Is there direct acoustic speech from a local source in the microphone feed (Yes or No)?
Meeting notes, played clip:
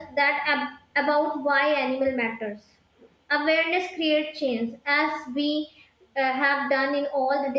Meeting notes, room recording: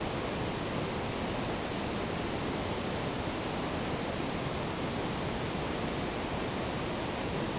No